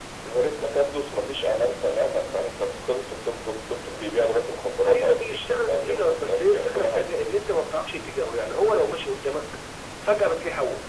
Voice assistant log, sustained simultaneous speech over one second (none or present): present